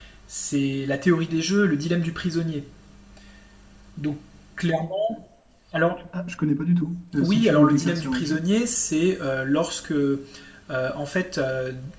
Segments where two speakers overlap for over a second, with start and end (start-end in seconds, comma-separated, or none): 7.2-8.4